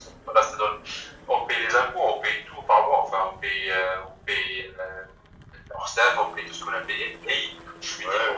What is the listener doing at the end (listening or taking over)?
listening